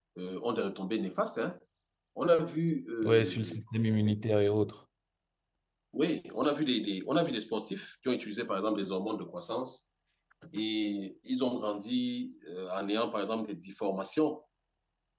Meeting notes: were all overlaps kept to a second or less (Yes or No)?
Yes